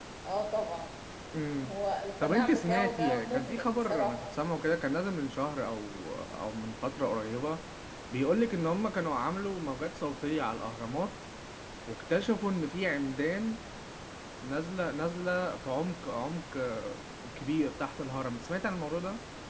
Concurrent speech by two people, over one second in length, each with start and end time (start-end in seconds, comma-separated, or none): 2.2-4.1